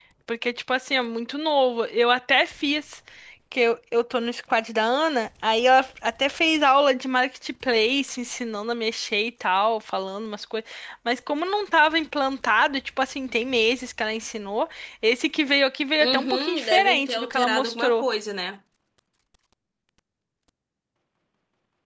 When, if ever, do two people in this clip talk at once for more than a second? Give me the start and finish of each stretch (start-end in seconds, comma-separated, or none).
16.0-18.0